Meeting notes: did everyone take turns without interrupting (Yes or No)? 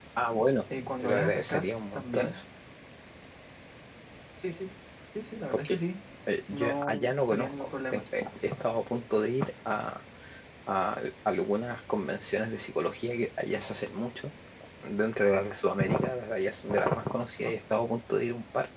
No